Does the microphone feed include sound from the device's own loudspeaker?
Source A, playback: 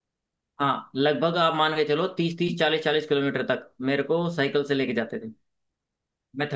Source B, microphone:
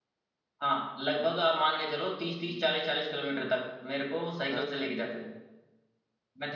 Yes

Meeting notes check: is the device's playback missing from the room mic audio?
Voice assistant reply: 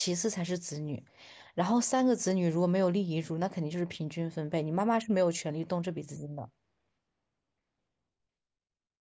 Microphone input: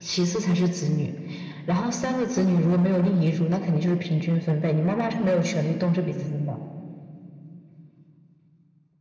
No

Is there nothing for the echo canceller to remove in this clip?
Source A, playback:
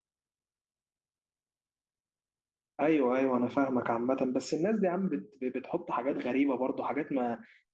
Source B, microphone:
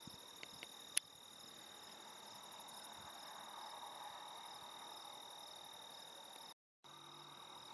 Yes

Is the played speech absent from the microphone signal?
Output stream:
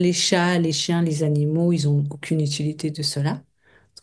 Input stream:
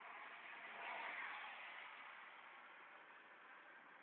Yes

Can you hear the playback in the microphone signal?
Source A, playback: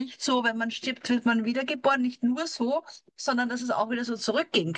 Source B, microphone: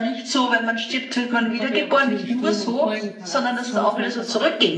Yes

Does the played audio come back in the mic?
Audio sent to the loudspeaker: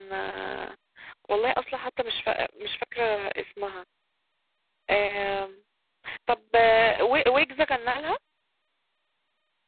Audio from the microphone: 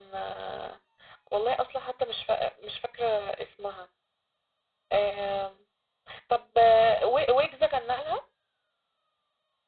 Yes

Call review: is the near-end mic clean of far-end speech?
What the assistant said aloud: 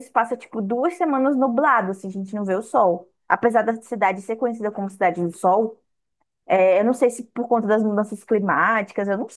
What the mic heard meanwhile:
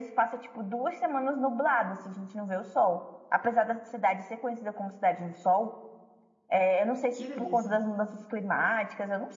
No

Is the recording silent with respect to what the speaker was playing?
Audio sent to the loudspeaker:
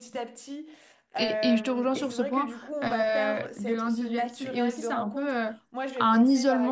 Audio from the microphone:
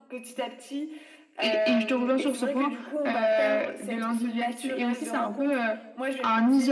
No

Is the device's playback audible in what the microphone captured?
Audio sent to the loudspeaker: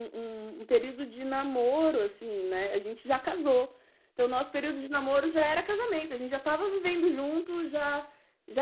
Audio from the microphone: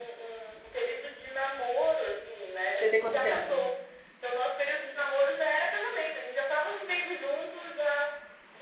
Yes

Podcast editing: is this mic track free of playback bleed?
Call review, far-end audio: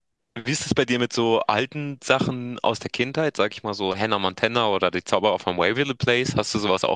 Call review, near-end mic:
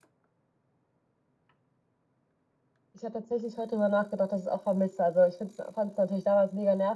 Yes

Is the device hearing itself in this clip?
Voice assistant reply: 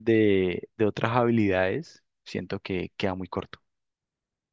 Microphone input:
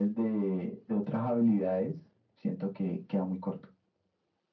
Yes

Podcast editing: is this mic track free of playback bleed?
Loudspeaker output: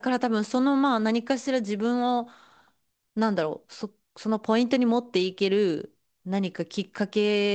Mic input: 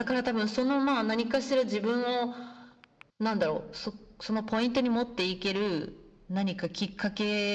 No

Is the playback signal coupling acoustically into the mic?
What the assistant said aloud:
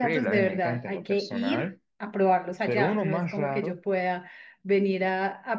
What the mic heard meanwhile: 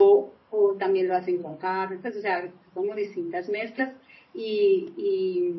No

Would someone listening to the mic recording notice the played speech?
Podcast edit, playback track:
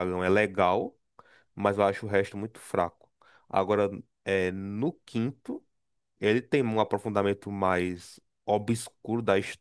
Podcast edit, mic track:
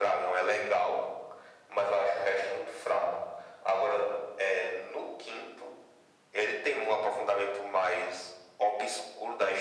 Yes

